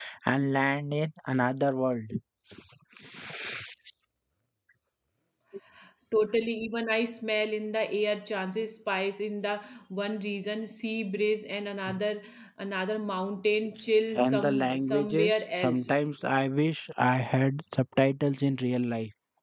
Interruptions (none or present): present